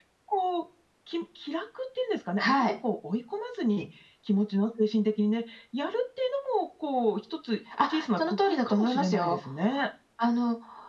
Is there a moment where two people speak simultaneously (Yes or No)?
Yes